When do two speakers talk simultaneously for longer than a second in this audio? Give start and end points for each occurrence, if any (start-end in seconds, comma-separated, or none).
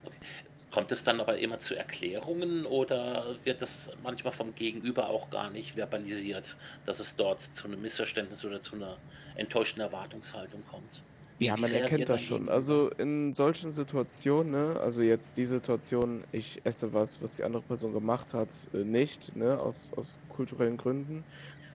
11.4-12.8